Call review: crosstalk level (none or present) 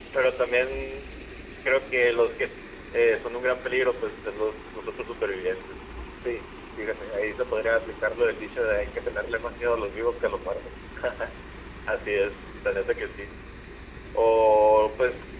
none